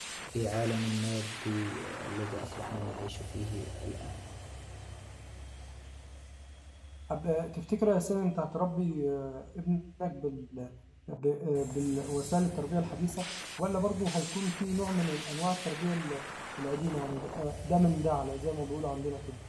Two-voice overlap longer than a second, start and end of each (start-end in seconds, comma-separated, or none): none